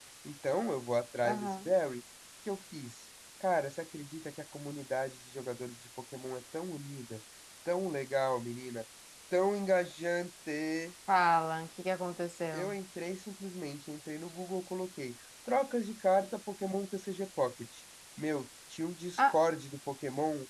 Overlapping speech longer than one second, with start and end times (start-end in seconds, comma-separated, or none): none